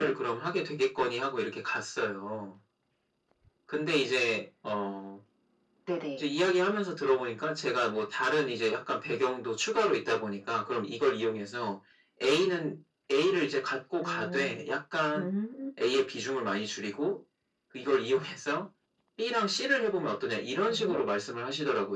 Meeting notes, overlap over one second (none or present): none